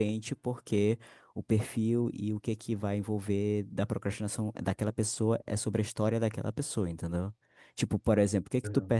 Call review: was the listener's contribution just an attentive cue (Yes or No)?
Yes